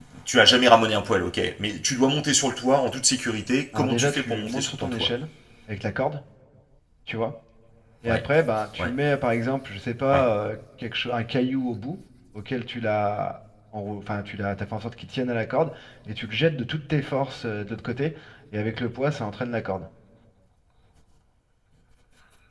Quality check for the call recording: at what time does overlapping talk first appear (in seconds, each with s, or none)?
3.8 s